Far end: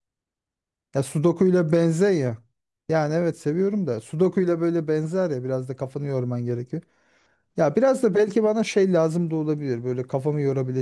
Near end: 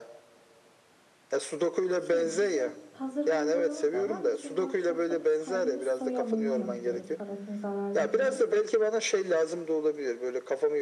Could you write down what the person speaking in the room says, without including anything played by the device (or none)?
şey bizim hazır mum boyama da var. Bizim workshopta biz kendimiz soya mumu yapıyoruz parafin zararlı diye.